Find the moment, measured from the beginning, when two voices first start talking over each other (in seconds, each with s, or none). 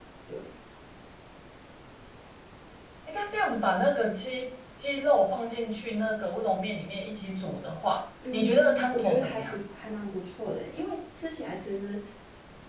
8.2 s